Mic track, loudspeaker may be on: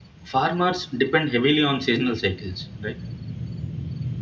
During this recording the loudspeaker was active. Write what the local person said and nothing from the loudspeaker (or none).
farmers depend heavily on seasonal cycles, right?